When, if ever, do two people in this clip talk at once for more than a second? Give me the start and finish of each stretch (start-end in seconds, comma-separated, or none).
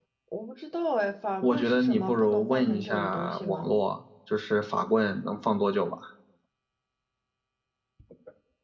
1.4-3.8